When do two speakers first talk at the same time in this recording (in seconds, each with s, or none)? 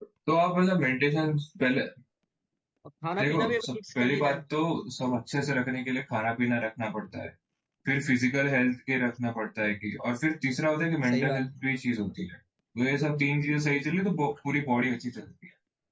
3.2 s